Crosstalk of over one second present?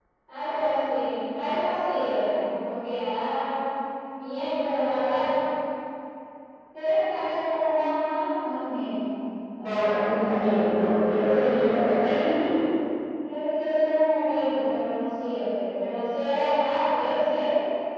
No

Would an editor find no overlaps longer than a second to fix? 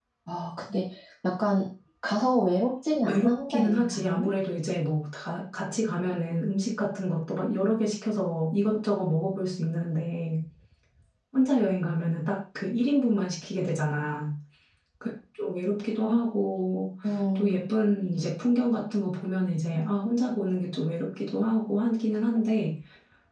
No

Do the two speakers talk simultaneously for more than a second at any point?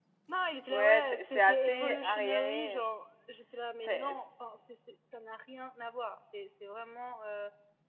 Yes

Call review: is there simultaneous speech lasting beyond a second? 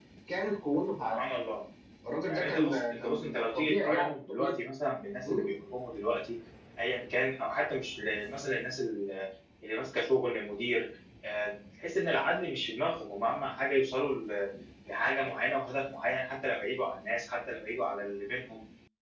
Yes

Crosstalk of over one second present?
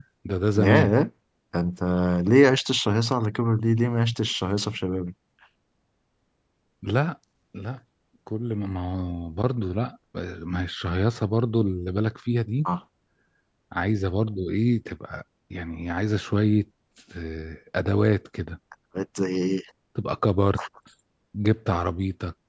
No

